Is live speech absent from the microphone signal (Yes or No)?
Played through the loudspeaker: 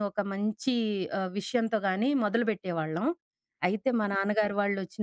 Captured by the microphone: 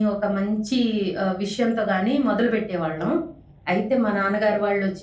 Yes